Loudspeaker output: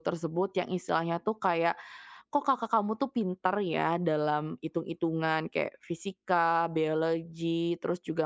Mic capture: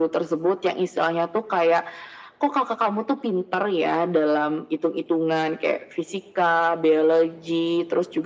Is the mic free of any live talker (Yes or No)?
Yes